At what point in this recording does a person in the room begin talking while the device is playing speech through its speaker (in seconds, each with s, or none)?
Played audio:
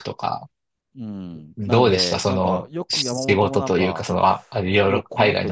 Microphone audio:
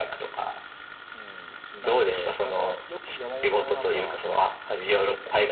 none